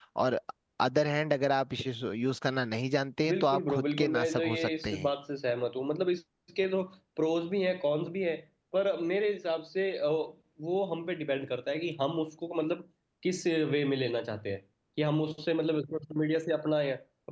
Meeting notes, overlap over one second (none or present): present